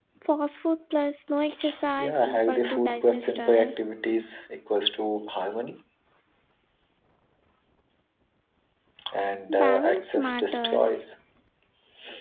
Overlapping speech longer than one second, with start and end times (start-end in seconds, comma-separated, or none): 2.0-3.7, 9.5-11.0